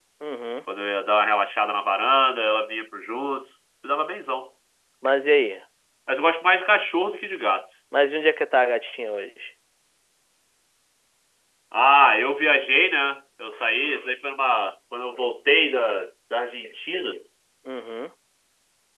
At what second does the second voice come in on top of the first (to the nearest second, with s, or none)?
none